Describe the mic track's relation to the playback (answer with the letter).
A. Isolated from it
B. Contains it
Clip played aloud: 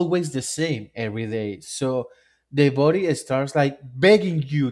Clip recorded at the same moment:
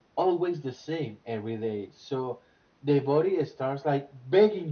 B